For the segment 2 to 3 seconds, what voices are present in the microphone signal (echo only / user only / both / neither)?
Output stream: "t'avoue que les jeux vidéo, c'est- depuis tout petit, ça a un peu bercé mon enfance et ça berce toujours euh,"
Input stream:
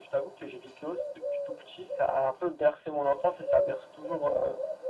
echo only